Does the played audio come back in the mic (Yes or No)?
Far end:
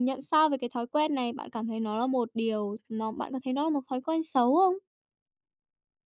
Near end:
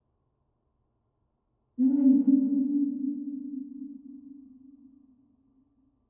No